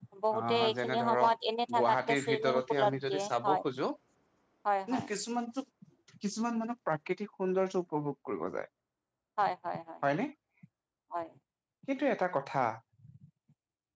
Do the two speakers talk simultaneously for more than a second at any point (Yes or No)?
Yes